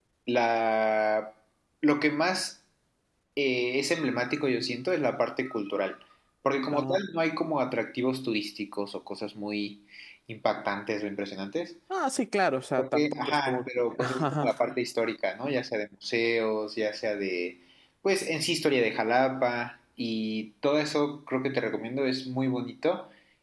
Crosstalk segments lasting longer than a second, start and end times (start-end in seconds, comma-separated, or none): 12.8-14.5